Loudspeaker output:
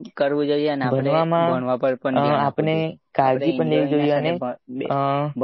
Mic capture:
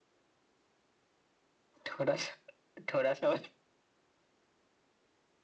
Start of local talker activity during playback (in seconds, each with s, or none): 1.9 s